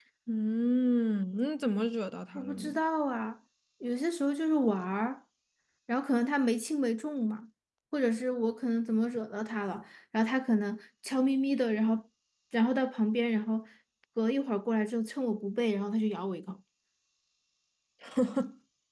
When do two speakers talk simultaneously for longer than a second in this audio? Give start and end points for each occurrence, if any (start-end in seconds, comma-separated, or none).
none